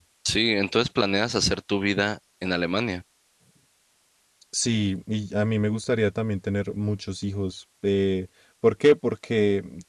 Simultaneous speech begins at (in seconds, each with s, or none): none